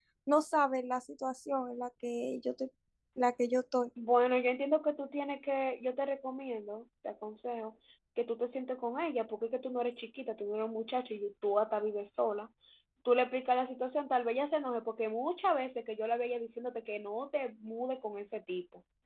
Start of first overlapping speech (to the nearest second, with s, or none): none